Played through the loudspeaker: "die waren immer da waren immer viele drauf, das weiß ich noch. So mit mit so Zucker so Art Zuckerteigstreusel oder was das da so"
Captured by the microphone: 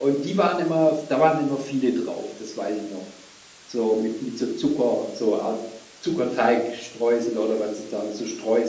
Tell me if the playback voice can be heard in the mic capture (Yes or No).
Yes